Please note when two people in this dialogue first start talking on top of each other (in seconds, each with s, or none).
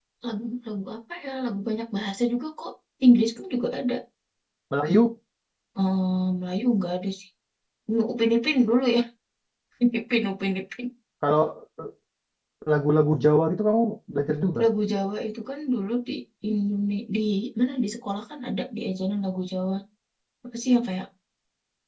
none